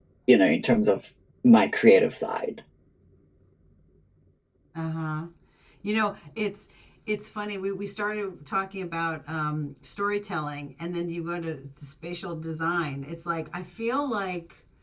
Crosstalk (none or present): none